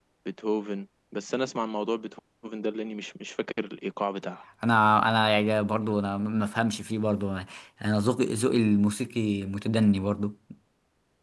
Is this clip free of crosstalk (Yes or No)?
Yes